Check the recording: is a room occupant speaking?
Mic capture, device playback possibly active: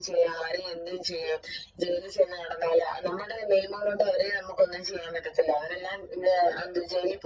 No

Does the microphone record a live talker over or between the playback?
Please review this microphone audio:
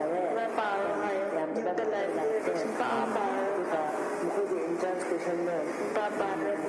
Yes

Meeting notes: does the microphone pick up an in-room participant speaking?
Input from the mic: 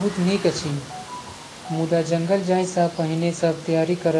Yes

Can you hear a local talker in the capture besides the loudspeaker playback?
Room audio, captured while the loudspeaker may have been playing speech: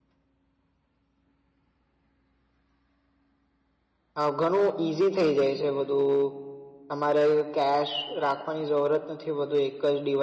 Yes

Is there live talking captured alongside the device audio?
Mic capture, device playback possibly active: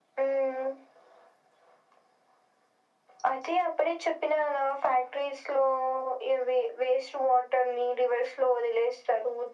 No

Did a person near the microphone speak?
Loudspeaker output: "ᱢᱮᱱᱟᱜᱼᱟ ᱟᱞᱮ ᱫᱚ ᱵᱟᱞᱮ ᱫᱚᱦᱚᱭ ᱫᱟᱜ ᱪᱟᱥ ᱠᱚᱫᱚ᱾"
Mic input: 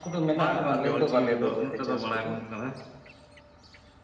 Yes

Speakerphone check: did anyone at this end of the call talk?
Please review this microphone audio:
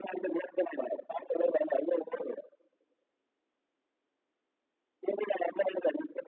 No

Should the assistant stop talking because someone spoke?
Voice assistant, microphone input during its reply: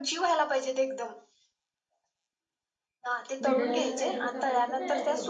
Yes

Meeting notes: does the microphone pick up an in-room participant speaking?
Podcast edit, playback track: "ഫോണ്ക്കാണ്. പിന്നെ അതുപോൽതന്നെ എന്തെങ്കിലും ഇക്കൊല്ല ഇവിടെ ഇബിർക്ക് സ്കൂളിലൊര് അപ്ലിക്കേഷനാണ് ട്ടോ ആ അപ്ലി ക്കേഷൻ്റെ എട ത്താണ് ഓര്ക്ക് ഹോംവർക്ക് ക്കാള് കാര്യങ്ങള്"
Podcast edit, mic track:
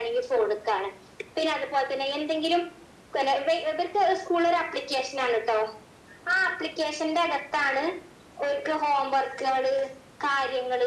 No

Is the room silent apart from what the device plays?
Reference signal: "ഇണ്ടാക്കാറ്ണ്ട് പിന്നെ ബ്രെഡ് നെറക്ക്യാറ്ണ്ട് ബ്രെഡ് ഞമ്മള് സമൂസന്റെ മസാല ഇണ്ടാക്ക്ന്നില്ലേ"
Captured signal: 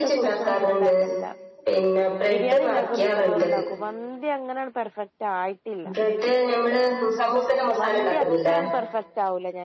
No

